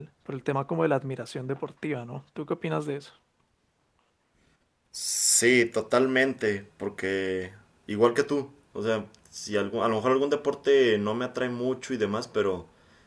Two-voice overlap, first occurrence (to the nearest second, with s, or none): none